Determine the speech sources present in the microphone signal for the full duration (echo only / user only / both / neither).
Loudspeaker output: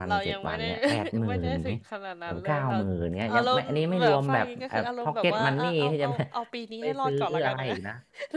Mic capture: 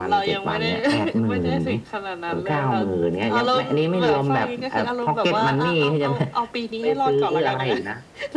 echo only